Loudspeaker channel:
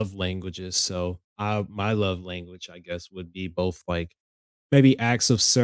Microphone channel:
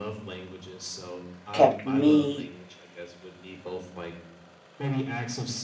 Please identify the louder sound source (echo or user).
user